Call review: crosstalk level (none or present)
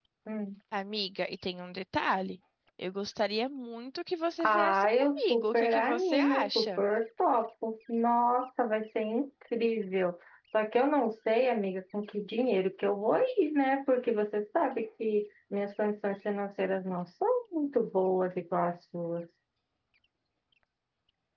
present